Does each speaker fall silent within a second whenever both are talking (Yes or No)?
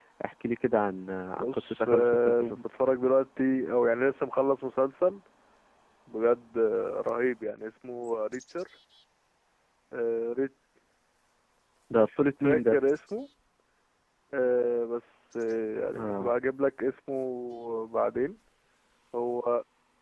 No